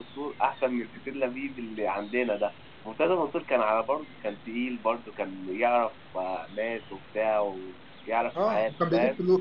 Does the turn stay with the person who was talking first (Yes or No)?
No